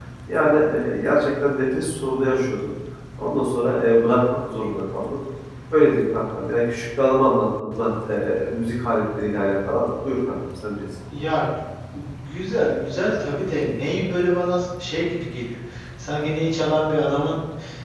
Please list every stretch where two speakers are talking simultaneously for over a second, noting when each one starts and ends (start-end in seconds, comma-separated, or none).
none